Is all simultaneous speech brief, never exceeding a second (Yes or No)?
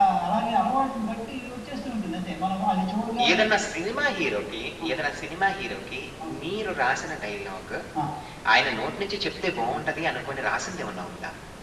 Yes